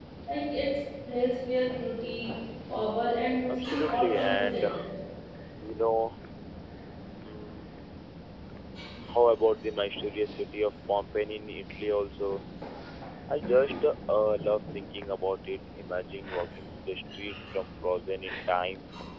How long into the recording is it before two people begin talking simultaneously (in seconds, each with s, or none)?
3.5 s